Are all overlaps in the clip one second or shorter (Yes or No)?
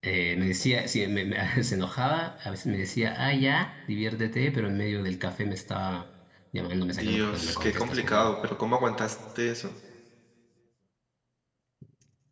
No